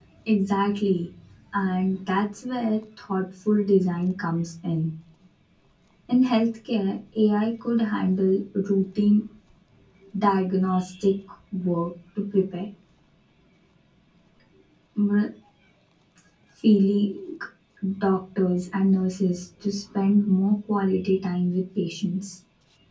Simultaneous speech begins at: none

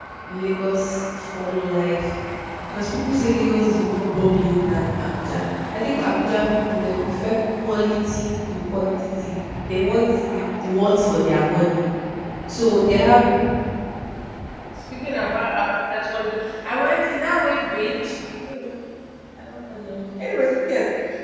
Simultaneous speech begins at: none

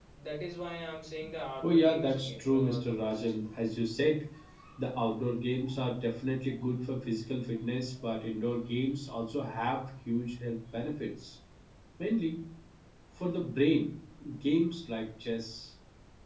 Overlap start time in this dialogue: 1.6 s

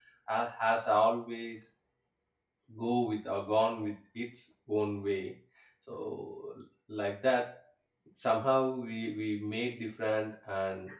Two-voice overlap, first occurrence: none

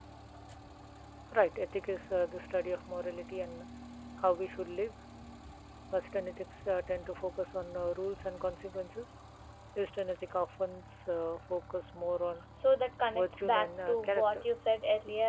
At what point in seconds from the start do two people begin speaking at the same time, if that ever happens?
13.1 s

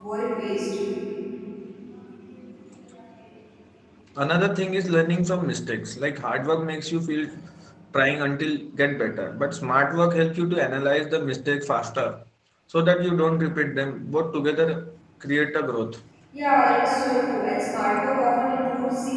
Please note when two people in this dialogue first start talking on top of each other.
none

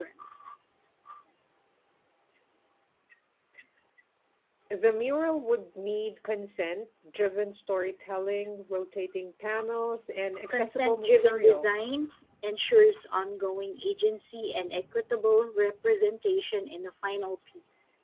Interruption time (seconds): 10.5 s

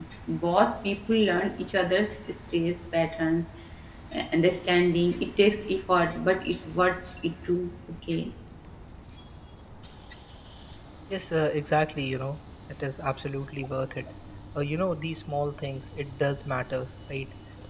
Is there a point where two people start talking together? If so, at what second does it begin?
none

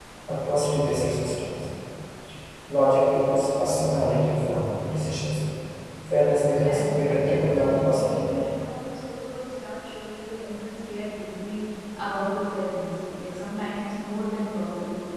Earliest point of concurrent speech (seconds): 6.6 s

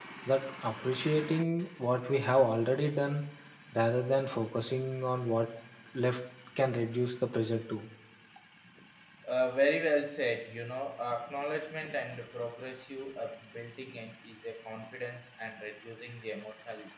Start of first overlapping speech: none

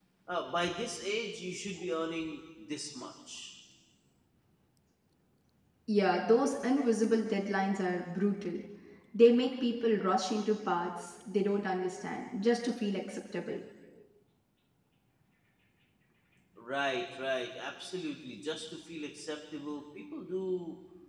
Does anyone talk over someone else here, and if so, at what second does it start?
none

